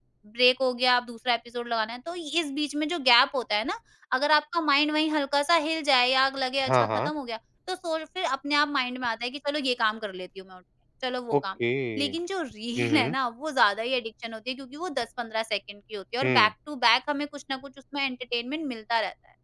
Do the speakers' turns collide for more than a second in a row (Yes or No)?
No